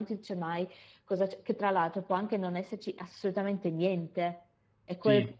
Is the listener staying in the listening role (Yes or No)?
Yes